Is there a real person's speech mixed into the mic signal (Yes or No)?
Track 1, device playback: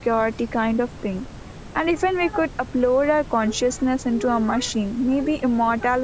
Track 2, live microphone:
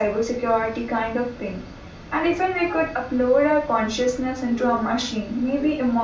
No